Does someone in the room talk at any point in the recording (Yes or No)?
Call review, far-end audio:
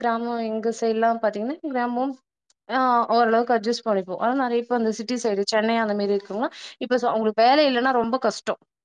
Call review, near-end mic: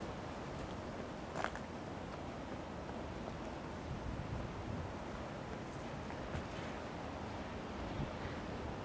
No